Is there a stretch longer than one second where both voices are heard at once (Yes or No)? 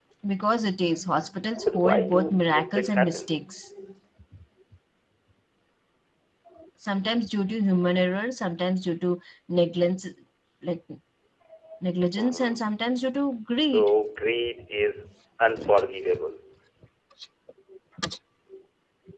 Yes